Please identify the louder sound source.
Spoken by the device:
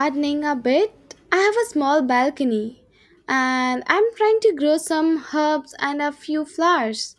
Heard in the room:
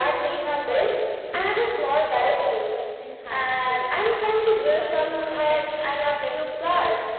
echo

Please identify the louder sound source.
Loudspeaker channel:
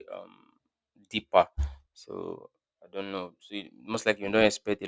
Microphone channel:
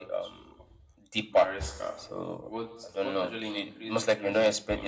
echo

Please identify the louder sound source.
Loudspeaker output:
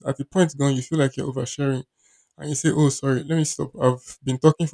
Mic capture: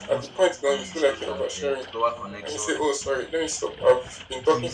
echo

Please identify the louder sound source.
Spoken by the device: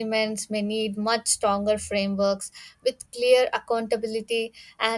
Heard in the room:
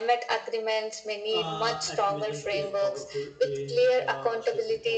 echo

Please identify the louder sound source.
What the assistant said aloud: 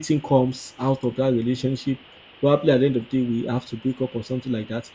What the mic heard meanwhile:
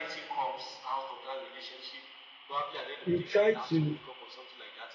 user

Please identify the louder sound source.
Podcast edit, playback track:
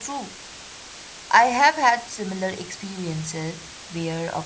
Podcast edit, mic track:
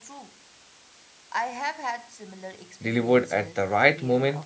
user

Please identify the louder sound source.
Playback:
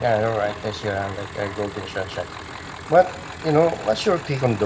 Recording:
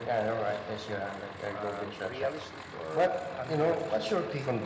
echo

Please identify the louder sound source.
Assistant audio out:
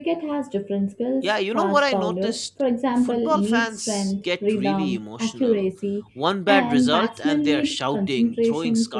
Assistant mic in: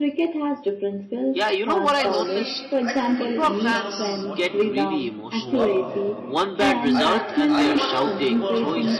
echo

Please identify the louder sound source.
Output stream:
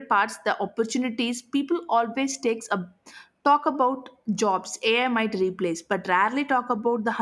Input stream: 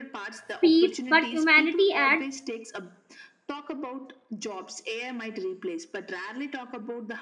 user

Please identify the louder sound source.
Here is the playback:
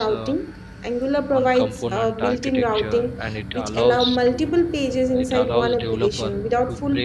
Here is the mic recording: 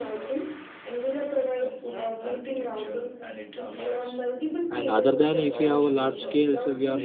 user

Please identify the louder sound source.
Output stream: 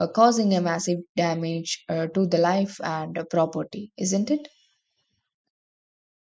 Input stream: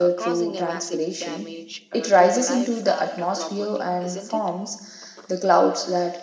user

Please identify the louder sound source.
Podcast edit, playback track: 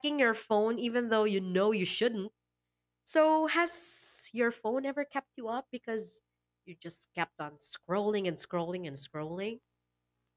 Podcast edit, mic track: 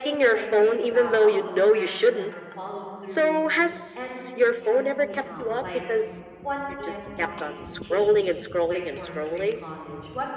echo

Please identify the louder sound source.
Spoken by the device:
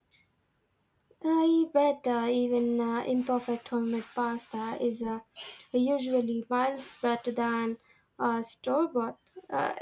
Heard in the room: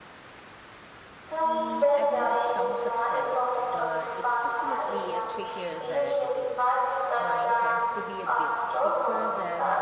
echo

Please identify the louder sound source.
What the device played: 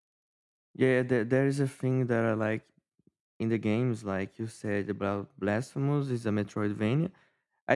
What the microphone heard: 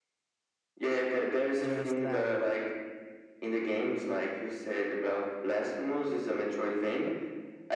echo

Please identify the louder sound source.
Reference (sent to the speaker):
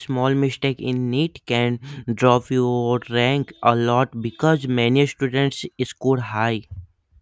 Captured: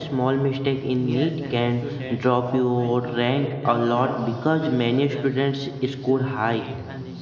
echo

